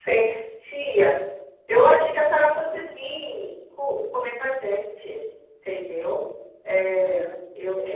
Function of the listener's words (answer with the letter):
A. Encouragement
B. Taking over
B